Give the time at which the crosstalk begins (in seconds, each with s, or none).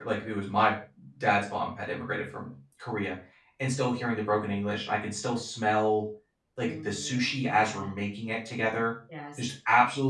6.6 s